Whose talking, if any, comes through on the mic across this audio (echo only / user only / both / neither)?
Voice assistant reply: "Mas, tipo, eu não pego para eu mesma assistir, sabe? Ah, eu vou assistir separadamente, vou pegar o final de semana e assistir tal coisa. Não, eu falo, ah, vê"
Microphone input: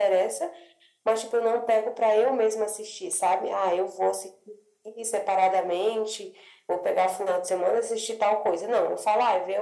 echo only